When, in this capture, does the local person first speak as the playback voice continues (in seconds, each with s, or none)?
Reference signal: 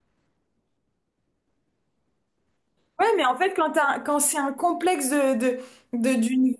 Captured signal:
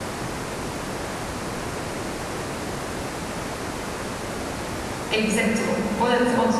5.1 s